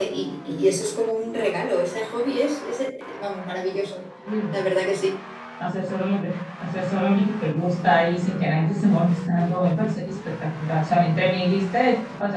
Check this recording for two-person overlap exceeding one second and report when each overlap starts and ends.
none

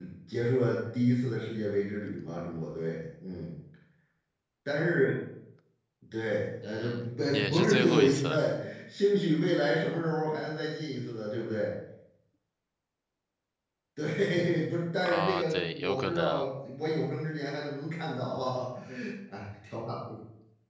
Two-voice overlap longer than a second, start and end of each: 6.6-8.2, 15.0-16.4

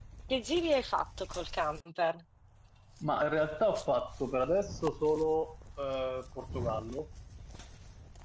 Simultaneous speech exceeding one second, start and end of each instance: none

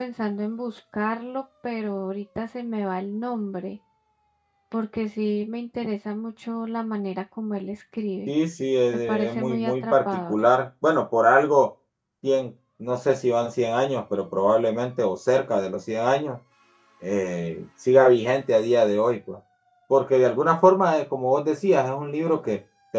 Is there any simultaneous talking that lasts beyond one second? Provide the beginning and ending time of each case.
9.1-10.5

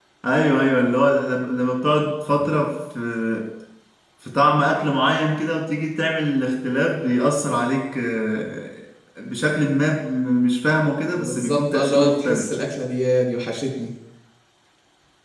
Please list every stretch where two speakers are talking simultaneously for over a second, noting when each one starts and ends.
11.2-12.5

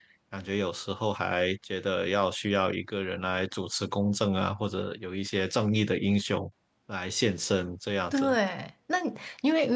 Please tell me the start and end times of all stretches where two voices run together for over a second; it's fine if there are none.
none

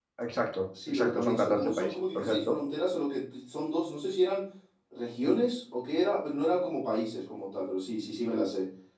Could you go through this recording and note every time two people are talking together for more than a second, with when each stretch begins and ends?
0.9-2.5

